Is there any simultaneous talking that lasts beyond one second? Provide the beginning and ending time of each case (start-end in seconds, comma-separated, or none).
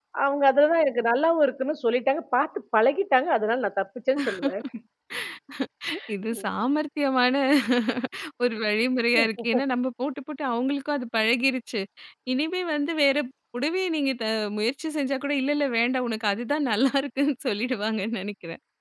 none